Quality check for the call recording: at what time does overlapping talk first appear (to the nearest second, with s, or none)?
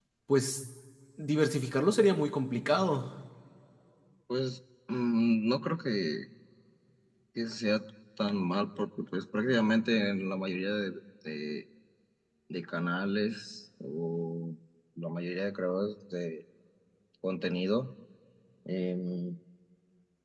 none